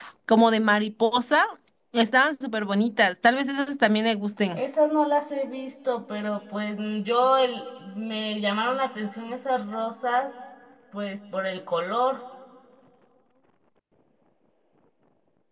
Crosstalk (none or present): none